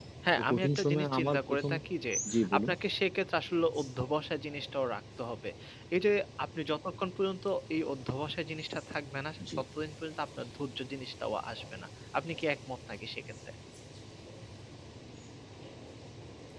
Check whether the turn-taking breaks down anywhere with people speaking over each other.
Yes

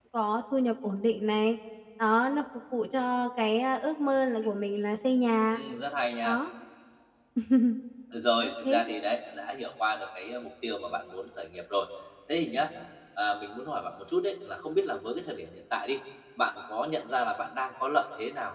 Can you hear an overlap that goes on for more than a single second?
No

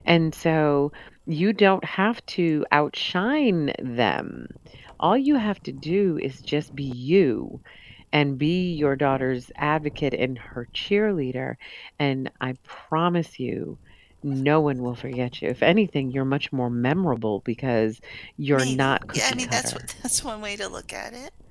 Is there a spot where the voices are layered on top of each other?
Yes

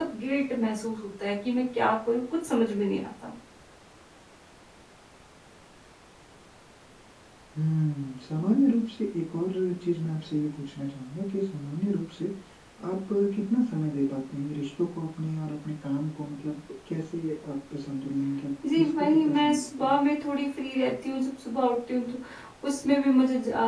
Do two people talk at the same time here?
Yes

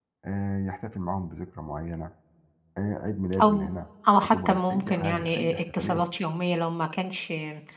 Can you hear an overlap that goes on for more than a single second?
Yes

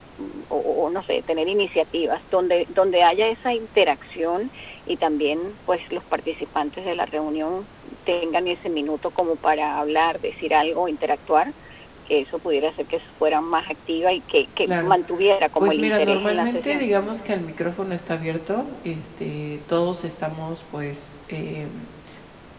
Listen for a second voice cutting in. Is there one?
Yes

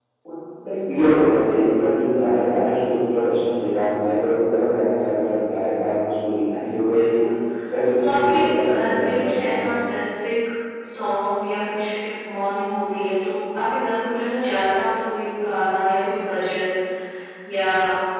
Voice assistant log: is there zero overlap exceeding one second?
No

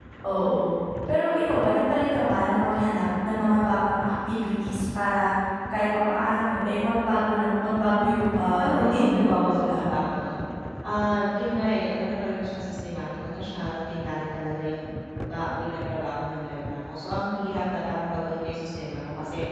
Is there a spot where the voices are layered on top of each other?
Yes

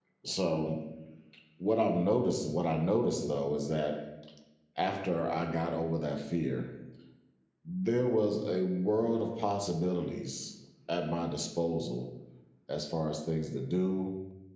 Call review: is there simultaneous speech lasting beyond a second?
No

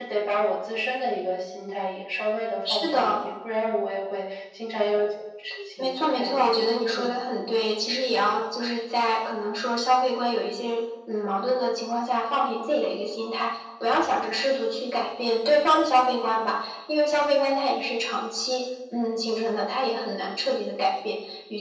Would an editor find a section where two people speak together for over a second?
Yes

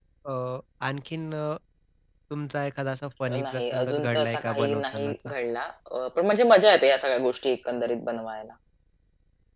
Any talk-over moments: Yes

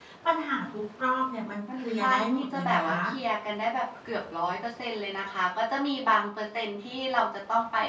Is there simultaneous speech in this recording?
Yes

